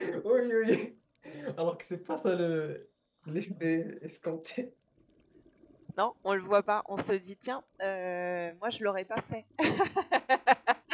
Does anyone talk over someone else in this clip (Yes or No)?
No